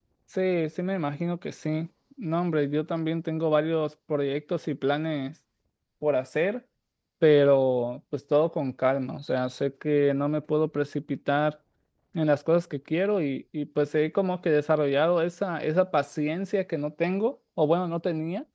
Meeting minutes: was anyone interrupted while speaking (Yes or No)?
No